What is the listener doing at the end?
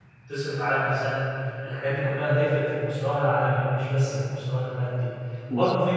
listening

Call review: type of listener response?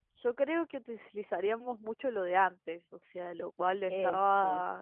listening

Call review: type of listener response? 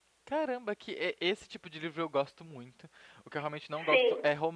listening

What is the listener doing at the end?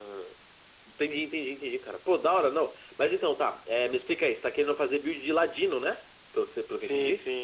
taking over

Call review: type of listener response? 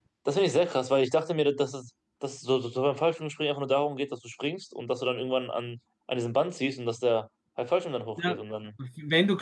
taking over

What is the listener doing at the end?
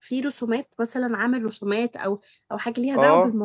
taking over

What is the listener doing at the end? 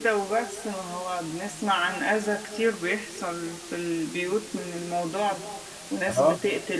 listening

